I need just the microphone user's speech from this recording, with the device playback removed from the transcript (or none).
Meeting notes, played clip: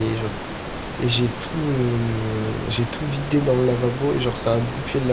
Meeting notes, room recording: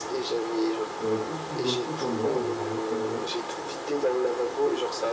Euh, comme si je bah, c'était pas moi, euh, vraiment, pas de bol.